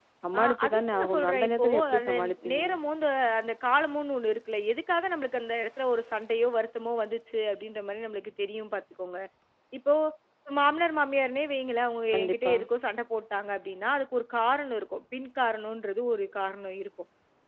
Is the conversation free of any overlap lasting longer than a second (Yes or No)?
No